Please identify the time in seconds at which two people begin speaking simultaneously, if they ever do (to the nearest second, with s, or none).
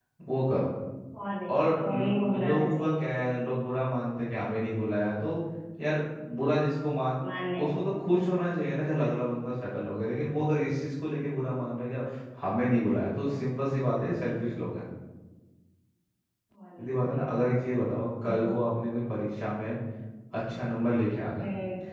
1 s